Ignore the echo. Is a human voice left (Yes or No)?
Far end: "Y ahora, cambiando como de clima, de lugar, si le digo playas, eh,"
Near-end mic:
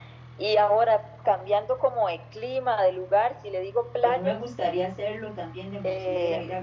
Yes